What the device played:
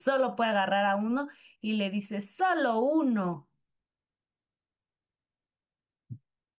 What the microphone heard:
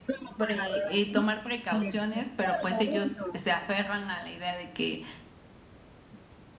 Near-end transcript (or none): pre- eh, tomar precauciones, pero pues ellos se aferran a la idea de que